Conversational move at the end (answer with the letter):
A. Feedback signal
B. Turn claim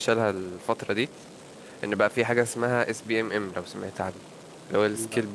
A